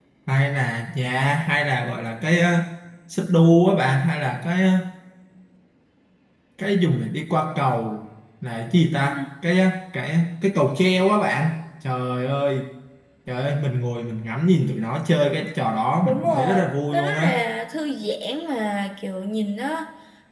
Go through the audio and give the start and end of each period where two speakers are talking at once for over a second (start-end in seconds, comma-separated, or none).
16.0-17.3